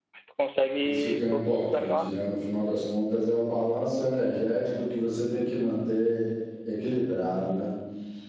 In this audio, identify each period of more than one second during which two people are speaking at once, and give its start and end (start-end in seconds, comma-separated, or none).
0.8-2.1